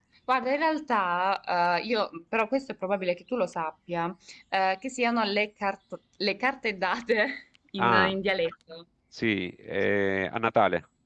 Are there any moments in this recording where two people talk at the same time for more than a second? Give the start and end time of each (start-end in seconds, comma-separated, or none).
none